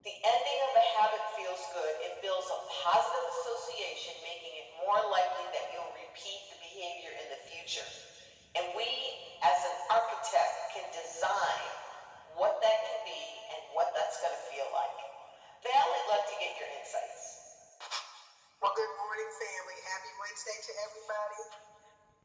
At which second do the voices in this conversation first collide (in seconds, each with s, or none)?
none